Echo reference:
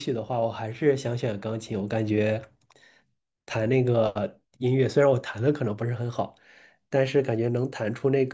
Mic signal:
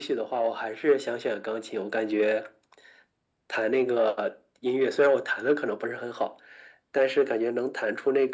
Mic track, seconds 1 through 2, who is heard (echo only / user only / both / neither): echo only